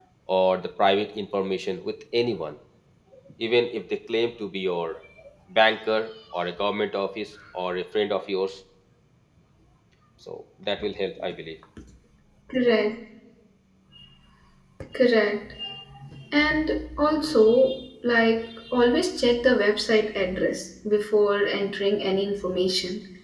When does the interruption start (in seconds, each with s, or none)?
none